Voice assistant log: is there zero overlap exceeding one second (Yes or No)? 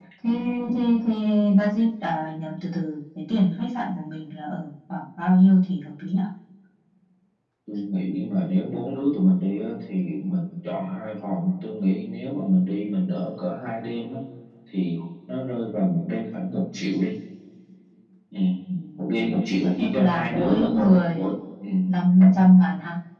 No